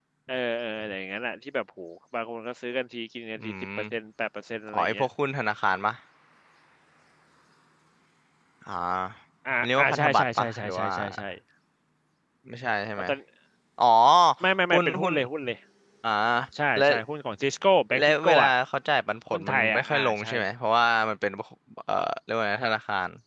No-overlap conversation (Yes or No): No